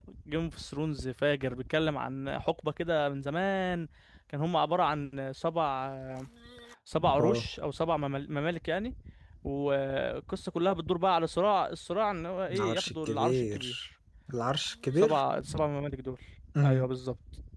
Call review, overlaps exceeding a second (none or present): present